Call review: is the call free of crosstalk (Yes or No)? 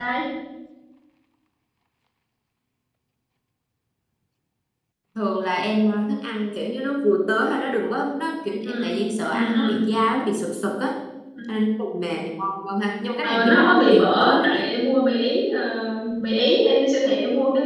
No